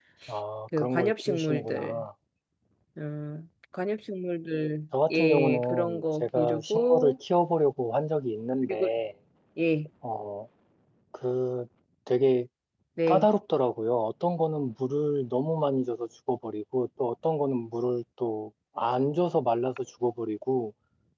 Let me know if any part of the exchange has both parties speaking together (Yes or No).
Yes